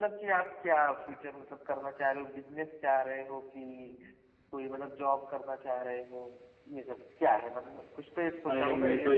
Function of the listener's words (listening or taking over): taking over